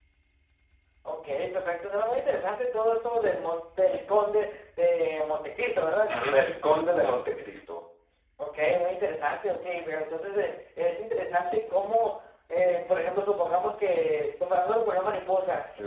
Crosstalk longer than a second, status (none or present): none